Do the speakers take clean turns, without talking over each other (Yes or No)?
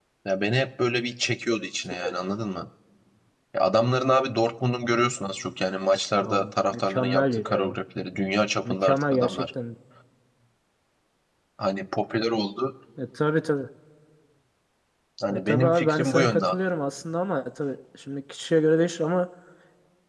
No